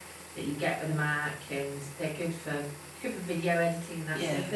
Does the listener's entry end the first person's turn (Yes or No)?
No